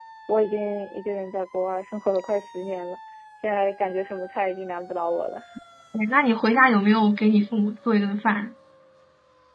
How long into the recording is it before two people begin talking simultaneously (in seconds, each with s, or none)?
none